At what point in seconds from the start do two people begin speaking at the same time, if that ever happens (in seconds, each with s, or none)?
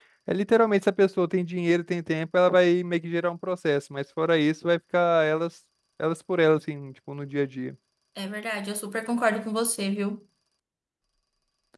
none